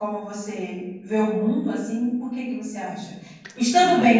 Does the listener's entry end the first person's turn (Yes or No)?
No